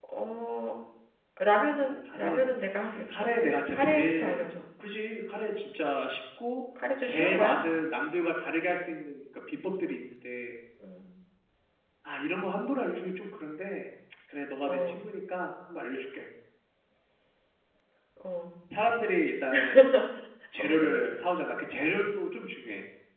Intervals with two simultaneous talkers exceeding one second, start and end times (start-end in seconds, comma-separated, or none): 3.1-4.4